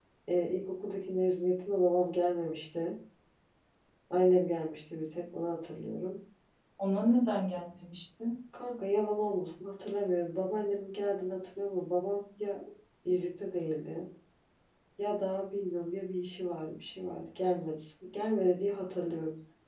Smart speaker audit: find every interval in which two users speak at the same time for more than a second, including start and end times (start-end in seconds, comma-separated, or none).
none